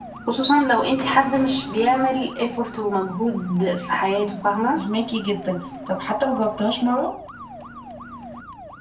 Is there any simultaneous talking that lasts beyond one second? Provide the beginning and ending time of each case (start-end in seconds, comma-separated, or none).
none